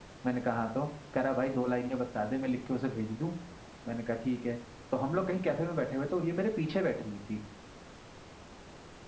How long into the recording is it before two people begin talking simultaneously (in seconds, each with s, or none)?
none